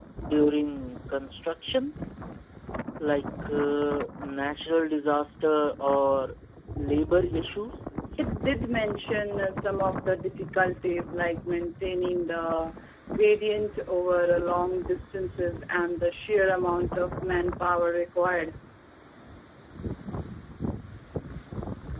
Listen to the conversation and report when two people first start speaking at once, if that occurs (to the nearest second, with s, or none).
none